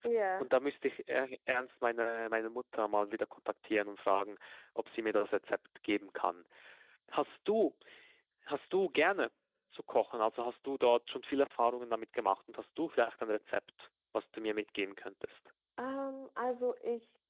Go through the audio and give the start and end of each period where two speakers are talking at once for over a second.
none

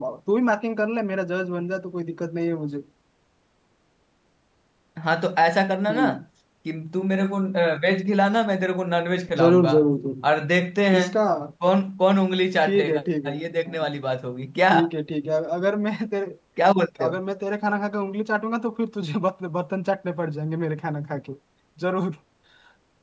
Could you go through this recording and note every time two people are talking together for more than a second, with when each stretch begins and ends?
none

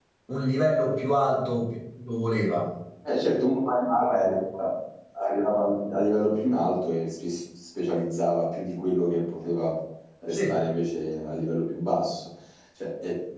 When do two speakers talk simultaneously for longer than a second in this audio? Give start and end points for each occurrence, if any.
none

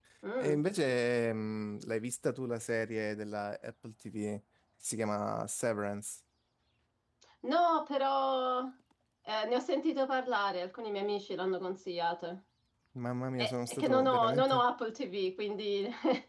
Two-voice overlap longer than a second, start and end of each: 13.4-14.6

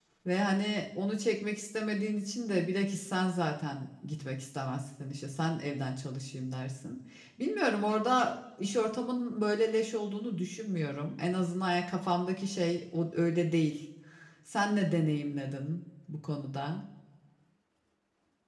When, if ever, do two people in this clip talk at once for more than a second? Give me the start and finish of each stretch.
none

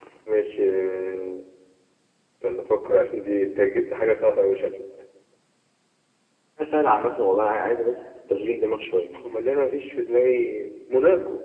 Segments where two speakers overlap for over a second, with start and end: none

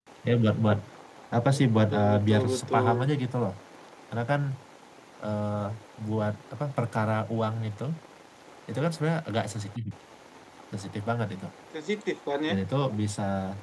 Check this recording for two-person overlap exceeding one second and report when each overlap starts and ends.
1.5-3.0

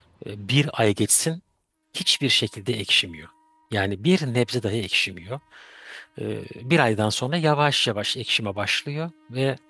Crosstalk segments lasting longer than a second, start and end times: none

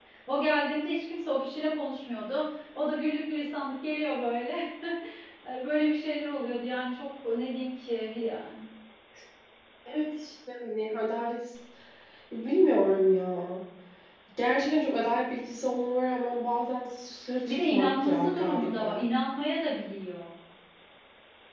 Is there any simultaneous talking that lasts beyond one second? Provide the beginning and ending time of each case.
17.5-19.0

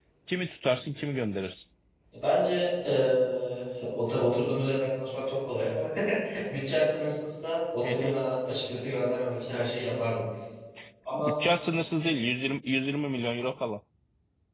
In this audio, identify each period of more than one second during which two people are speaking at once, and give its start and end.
none

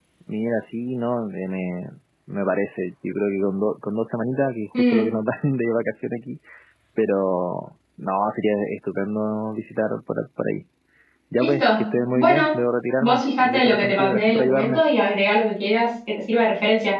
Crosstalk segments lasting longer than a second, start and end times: 13.0-14.8

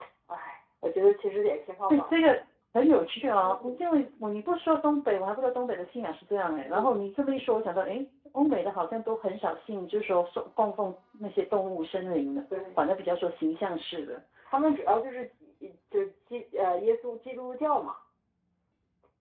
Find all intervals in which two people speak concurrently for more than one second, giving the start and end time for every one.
none

